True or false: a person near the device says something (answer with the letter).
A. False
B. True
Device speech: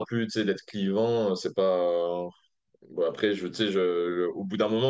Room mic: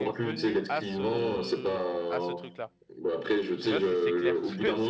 B